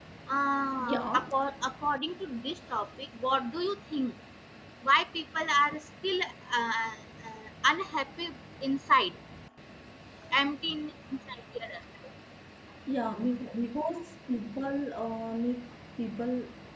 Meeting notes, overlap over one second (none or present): none